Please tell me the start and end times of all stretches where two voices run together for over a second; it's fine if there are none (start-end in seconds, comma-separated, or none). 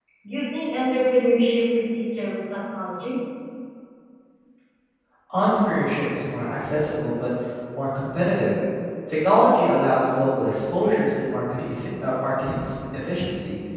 none